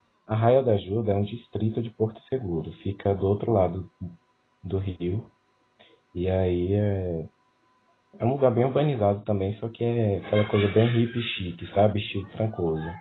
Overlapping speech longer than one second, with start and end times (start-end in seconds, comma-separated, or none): none